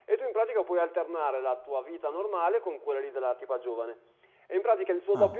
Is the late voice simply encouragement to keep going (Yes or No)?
Yes